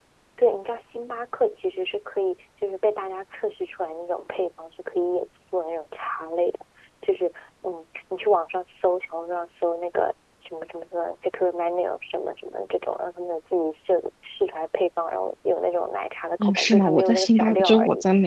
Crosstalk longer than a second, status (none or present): present